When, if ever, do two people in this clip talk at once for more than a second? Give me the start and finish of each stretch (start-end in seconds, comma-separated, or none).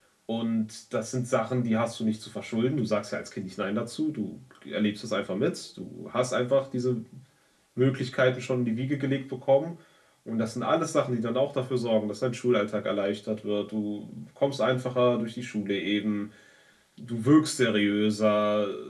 none